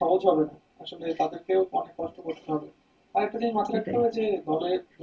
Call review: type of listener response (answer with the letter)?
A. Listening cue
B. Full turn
A